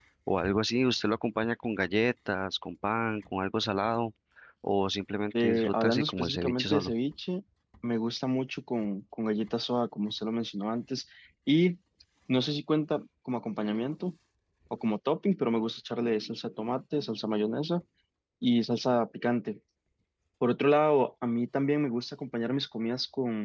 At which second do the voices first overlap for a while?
5.4 s

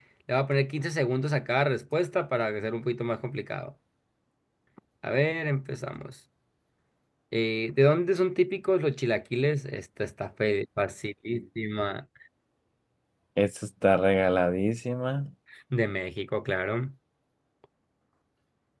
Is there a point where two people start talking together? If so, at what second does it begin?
none

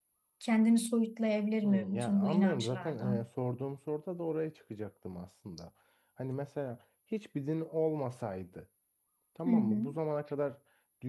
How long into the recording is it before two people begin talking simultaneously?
1.6 s

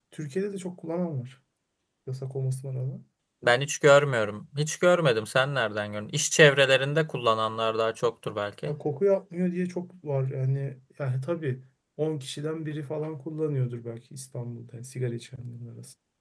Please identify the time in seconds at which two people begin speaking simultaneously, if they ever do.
none

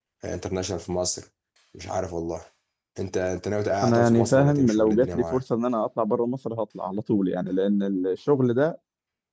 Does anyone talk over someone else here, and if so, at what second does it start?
3.8 s

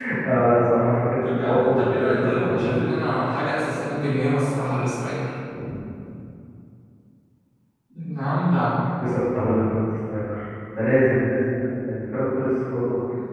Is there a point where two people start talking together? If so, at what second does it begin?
1.2 s

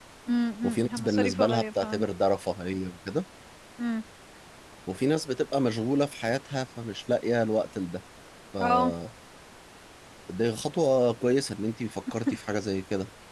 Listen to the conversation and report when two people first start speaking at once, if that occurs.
0.6 s

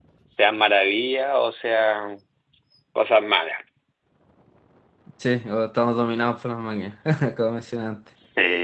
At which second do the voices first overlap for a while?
none

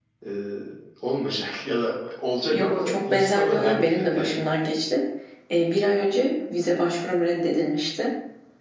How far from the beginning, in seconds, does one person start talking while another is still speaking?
2.5 s

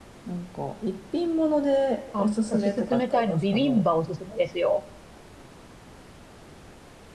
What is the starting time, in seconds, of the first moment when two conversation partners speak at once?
2.1 s

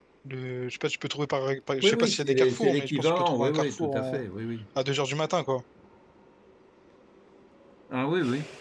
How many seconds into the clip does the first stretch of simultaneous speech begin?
1.8 s

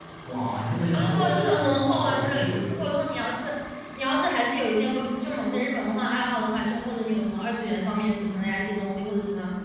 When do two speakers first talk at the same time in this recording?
0.9 s

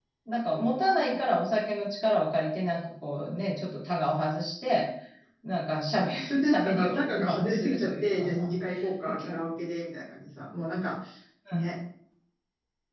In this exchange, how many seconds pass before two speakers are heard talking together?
6.4 s

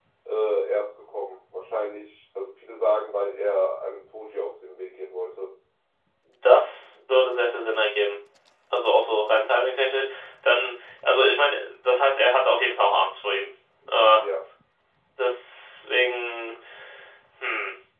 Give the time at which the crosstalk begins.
none

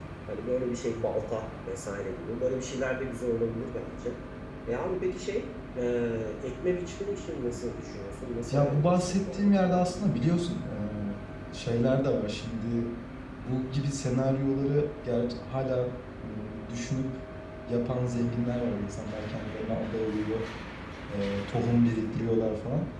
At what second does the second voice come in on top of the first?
8.5 s

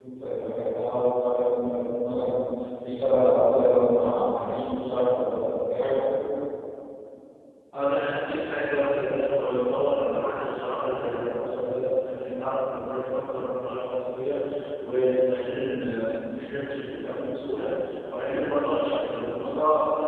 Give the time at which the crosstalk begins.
none

